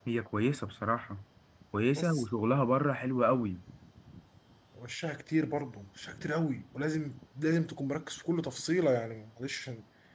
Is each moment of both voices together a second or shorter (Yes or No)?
Yes